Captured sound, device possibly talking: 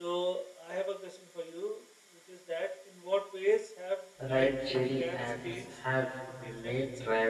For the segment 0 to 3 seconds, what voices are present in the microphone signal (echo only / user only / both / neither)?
echo only